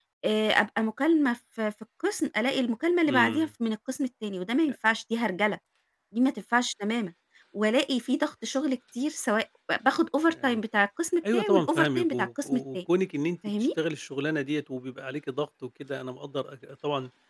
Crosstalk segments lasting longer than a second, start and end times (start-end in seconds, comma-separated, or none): 11.3-12.8